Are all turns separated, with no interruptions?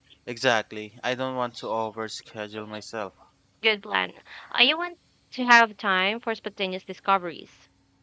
Yes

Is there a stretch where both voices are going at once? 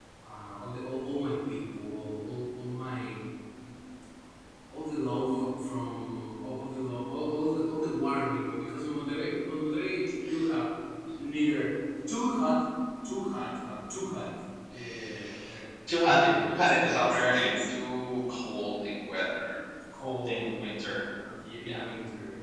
Yes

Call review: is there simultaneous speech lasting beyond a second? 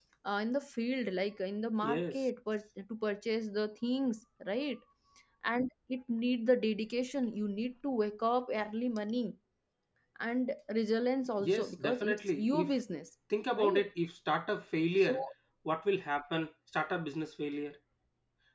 Yes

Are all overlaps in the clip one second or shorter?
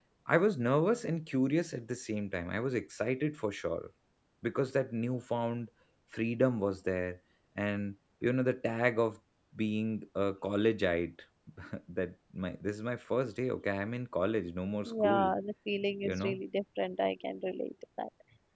Yes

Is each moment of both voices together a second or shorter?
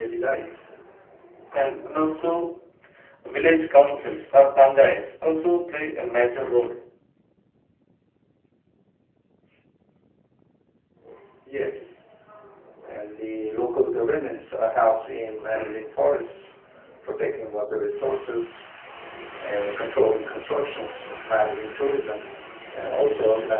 Yes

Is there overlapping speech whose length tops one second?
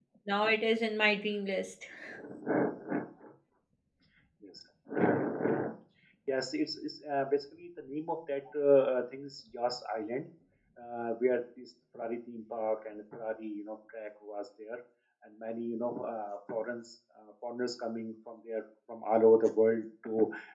No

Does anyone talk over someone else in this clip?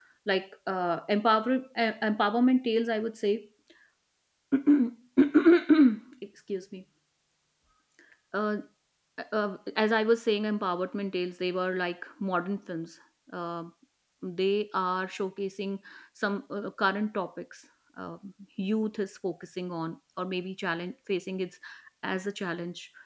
No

